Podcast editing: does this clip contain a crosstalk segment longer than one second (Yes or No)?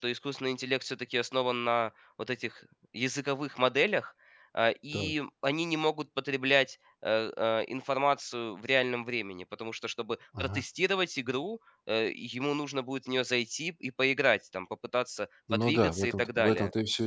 Yes